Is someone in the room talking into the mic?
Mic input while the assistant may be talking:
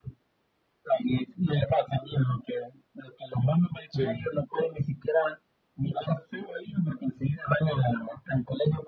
Yes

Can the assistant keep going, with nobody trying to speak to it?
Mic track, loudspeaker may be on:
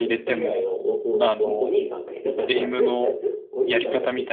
No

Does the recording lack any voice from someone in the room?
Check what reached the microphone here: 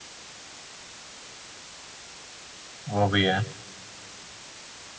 No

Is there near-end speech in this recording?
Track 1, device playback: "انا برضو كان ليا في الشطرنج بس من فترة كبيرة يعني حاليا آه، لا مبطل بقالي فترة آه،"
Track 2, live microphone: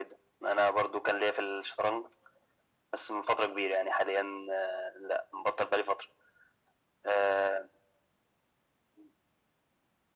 No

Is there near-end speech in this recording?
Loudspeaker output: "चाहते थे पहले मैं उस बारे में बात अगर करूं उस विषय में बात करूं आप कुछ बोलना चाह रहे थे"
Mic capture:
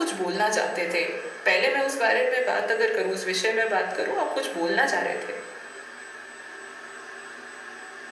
No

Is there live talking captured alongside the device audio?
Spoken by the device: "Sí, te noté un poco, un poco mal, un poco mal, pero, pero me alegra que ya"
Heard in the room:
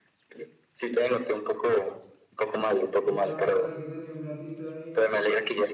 Yes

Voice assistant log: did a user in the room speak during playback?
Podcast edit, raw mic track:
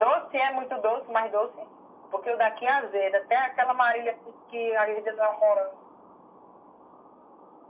No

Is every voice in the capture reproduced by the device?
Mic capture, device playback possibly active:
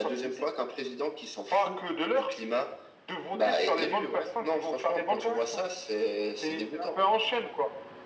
Yes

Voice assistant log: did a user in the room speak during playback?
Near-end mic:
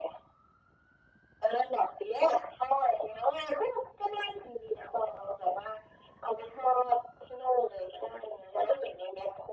No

